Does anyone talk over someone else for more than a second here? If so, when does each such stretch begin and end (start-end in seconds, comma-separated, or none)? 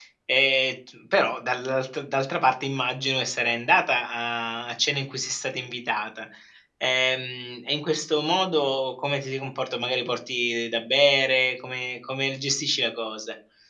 none